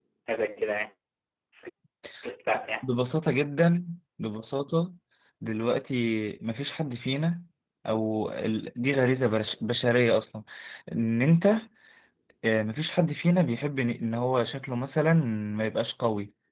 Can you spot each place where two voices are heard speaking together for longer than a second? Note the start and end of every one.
none

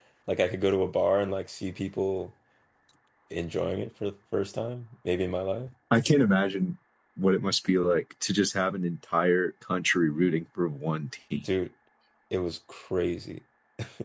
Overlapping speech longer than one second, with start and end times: none

